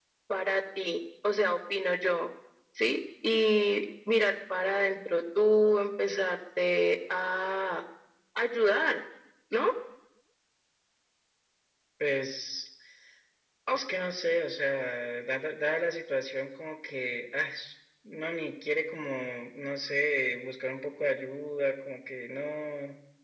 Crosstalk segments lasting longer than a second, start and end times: none

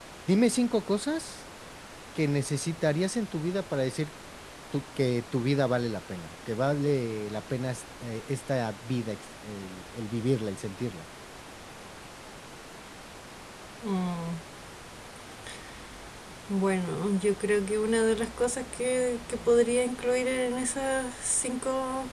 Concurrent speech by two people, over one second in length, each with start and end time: none

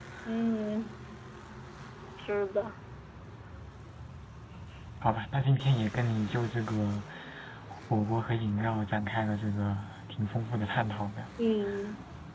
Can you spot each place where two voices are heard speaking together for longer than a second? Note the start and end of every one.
none

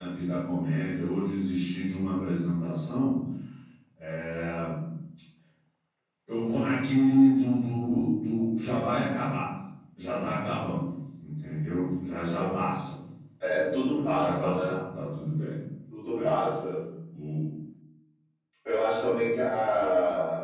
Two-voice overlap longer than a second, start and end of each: 13.4-14.7

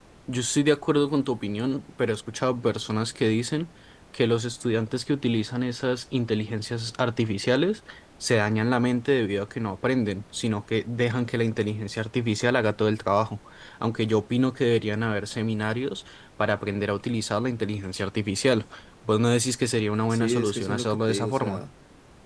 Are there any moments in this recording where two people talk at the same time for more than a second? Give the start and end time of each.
20.1-21.6

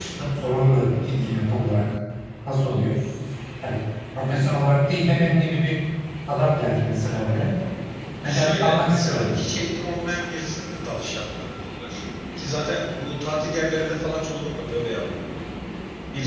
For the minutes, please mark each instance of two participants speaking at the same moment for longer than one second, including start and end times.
8.2-9.4

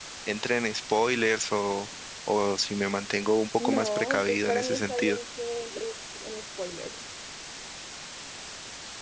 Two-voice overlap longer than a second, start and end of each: 3.6-5.2

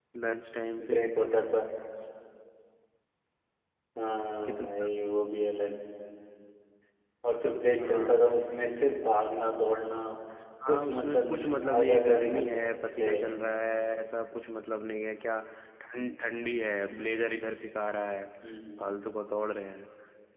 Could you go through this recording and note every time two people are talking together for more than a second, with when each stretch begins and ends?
10.6-13.1

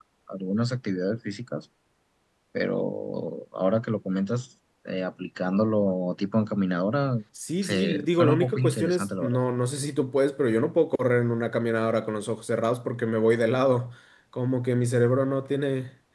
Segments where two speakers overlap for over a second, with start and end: 7.6-9.4

